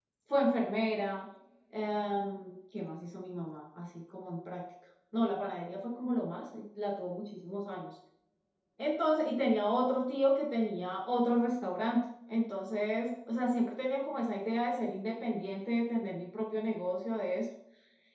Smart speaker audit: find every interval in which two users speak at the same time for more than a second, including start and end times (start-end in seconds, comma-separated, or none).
none